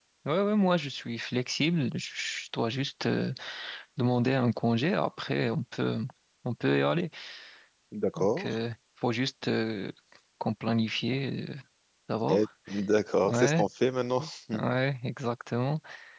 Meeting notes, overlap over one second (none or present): none